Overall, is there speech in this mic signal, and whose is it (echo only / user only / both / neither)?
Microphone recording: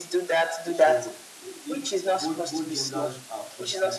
both